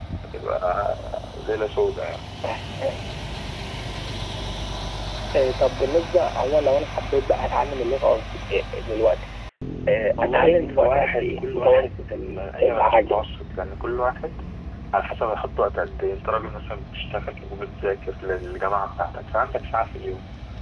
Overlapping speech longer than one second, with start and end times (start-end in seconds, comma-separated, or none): 10.2-13.2